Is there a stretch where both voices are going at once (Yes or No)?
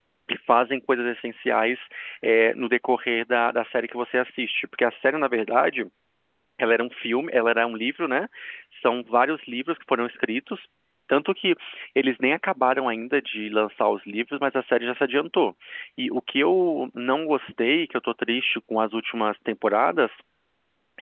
No